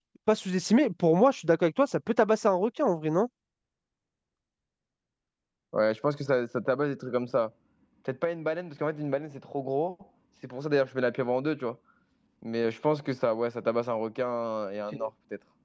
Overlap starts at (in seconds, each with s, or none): none